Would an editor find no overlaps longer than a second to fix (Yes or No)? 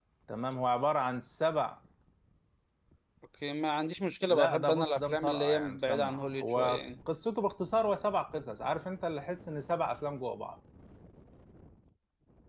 No